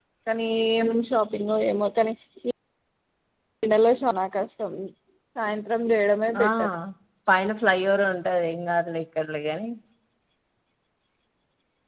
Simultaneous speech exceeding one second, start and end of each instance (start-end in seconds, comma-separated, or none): none